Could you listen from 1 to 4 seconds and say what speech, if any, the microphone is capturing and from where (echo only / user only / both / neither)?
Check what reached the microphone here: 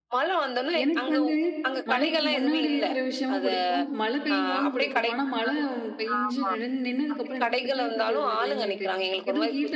both